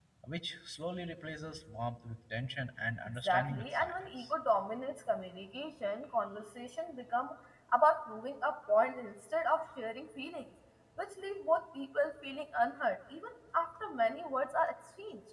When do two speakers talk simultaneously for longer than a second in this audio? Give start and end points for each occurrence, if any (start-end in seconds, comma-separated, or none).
3.0-4.3